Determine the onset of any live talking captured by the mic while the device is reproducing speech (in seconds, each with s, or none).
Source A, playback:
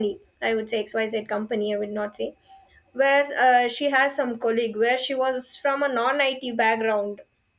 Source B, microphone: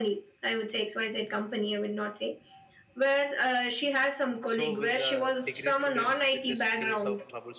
4.4 s